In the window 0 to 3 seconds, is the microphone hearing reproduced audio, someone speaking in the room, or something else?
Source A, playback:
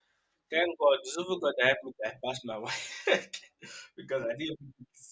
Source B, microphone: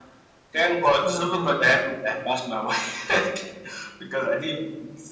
both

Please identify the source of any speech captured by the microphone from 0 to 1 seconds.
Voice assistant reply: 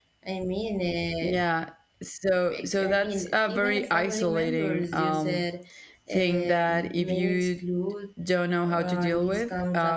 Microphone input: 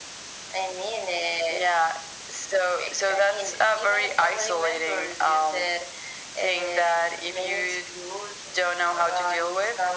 echo only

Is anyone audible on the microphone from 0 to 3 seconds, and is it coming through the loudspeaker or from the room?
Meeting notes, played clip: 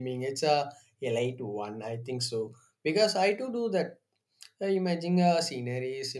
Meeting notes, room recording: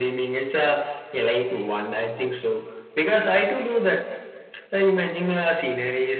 echo only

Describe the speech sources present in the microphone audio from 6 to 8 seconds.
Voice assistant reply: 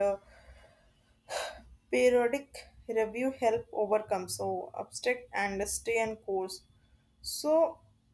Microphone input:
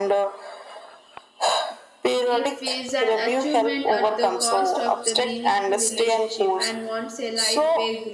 both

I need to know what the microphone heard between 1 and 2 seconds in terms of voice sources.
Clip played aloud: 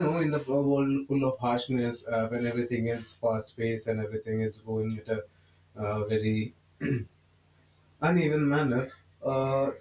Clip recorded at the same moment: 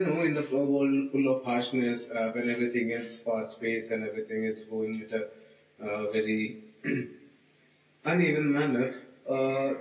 echo only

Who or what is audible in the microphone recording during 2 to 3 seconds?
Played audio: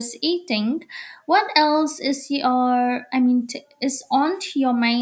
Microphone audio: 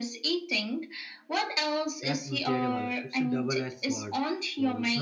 both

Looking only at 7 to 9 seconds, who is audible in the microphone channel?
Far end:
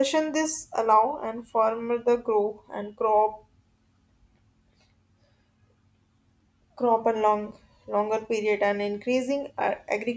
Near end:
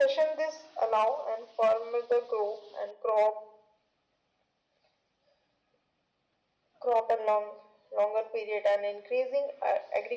echo only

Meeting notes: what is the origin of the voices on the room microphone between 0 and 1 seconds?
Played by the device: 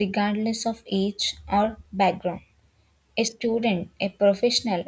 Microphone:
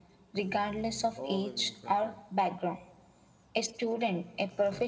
echo only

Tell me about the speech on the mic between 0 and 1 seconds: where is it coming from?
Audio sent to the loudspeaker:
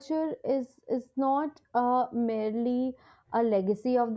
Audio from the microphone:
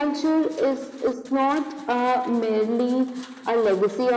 echo only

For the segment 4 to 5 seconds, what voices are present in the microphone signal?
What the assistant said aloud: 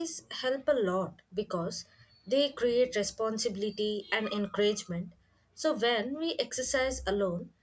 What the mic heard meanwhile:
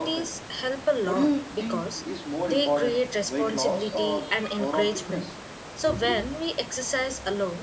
both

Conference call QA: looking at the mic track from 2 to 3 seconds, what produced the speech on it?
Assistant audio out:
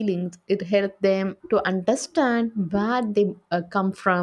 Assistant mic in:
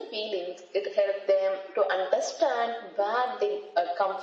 echo only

